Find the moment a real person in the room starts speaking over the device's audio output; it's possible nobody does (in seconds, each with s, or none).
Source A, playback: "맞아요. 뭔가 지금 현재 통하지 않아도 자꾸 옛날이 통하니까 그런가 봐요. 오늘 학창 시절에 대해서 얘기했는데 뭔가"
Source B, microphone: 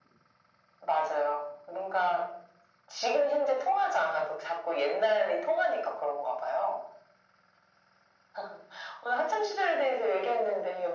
none